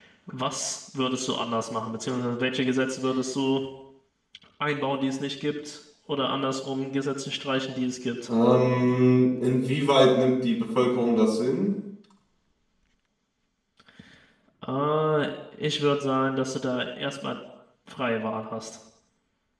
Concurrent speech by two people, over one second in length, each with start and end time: none

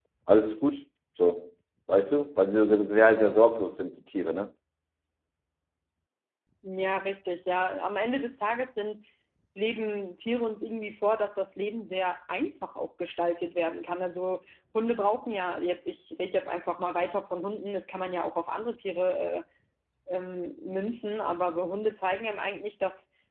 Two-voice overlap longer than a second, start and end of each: none

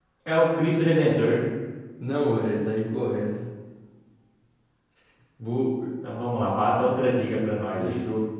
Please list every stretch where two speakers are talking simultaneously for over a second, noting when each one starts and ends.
none

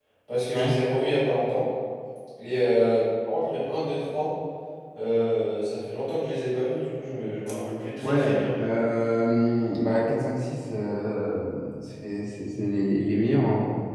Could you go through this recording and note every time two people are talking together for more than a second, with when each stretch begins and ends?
none

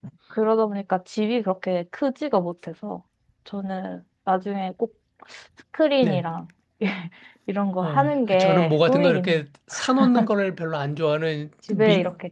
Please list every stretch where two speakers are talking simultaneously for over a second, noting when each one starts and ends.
7.8-9.4

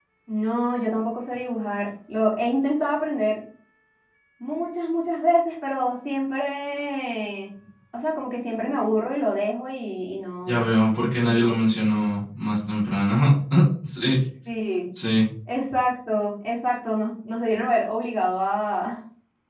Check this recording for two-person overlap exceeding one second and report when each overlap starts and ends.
none

